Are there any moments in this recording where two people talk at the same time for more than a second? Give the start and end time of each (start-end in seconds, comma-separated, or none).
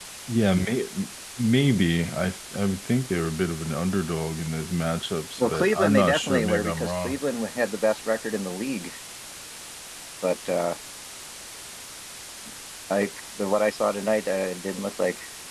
5.4-7.2